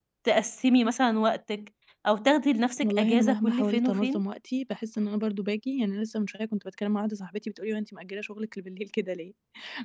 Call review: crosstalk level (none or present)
present